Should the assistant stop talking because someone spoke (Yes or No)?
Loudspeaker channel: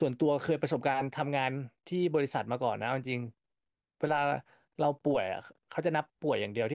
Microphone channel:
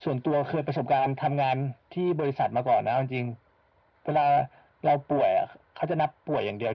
No